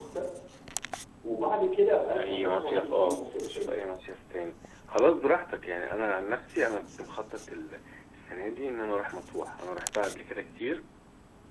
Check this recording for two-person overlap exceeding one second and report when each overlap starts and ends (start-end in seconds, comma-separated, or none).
2.2-3.8